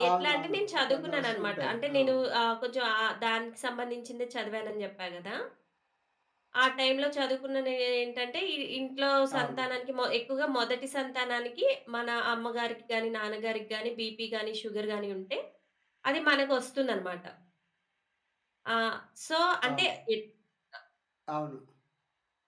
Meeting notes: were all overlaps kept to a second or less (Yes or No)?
No